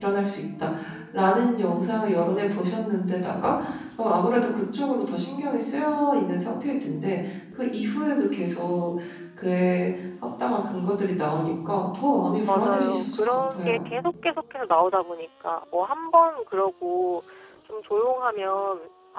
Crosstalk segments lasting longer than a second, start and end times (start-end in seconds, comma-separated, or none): 12.4-13.8